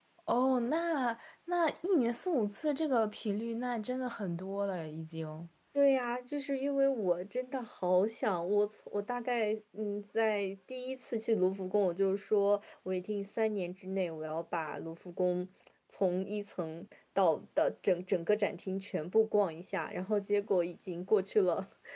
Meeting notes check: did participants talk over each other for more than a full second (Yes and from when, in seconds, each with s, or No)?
No